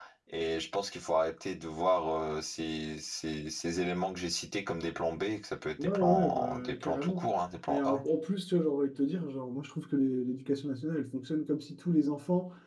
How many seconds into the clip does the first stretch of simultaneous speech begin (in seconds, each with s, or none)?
5.8 s